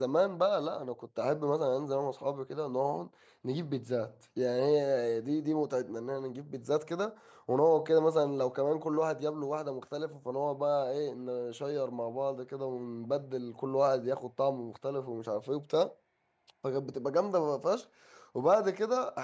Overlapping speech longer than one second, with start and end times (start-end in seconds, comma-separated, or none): none